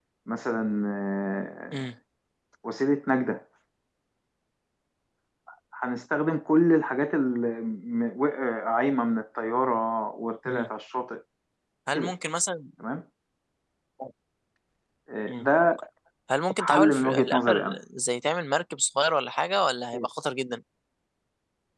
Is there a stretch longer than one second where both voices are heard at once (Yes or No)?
Yes